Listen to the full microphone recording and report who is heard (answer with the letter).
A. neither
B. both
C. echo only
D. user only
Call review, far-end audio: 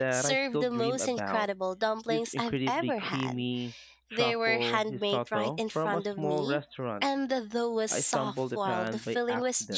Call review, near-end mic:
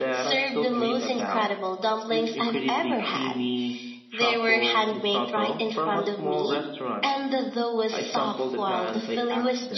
C